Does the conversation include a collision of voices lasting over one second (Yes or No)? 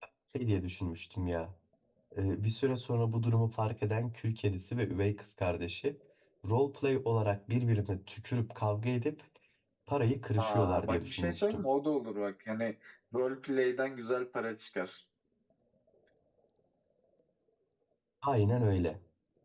Yes